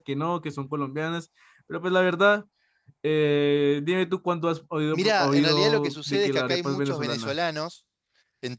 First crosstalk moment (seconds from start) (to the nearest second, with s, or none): 5 s